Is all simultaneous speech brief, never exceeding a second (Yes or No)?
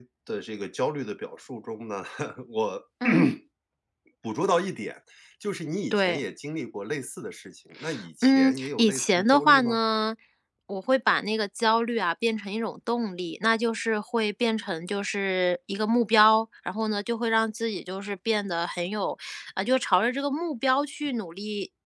No